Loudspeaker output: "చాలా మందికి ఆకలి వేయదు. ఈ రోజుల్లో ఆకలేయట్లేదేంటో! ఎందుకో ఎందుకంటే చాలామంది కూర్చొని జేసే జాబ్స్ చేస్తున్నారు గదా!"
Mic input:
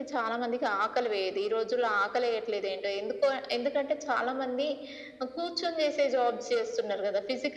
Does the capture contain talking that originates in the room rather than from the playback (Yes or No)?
No